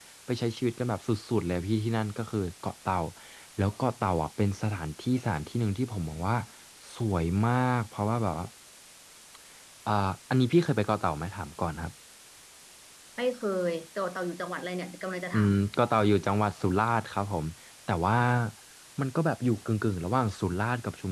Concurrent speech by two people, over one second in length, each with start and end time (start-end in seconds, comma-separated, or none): none